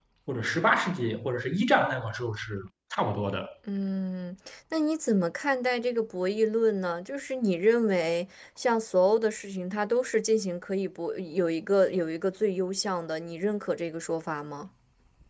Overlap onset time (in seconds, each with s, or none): none